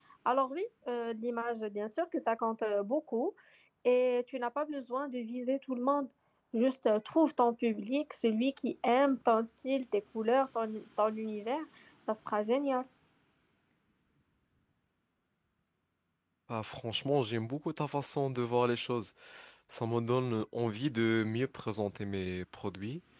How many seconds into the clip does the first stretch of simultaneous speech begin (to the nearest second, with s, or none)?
none